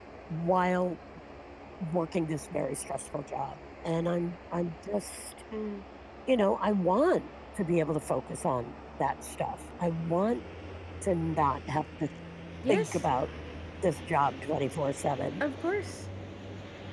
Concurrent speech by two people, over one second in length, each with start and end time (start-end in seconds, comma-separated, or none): none